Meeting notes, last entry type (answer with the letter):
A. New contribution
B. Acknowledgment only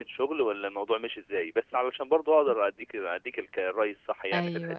A